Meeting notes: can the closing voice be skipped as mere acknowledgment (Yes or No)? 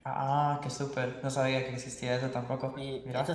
No